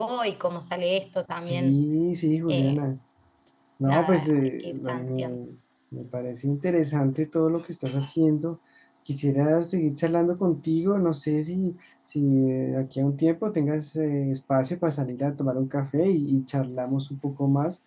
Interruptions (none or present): present